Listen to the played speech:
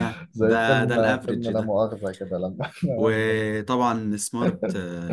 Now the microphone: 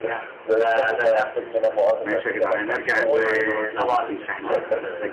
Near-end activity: present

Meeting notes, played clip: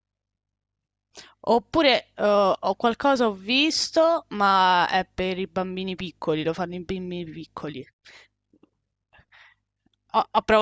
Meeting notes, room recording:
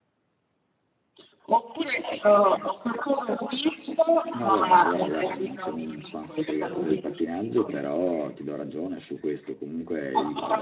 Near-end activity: present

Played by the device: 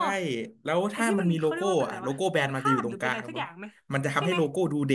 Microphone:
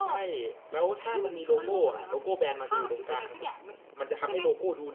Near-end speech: none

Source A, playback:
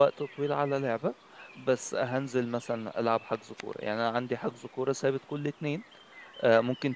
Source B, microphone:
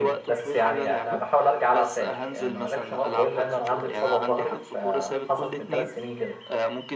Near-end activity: present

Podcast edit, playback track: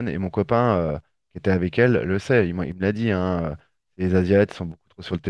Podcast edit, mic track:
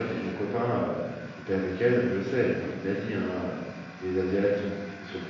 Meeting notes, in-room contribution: none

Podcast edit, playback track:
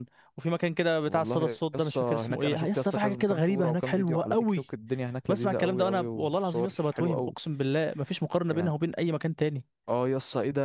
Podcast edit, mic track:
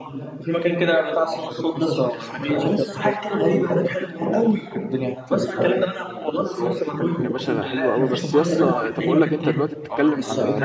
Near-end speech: present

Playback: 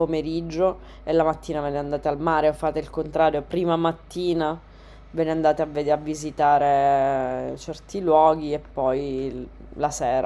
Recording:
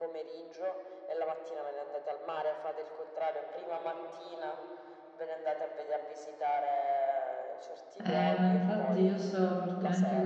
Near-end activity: present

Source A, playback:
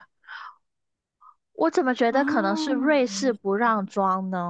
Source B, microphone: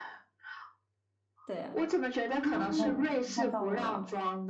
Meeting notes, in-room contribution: present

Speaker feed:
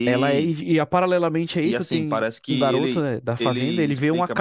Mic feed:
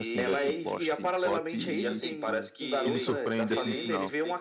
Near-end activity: present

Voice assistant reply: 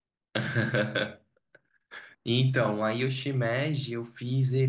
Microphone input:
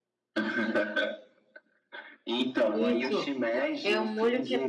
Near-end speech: present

